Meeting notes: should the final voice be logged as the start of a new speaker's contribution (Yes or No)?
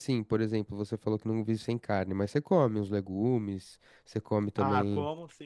Yes